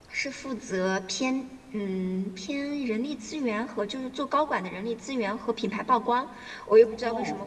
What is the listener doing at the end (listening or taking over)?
listening